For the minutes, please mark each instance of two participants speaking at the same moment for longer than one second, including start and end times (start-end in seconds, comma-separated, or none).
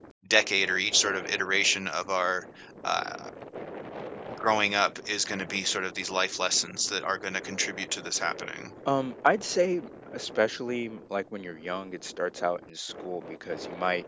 none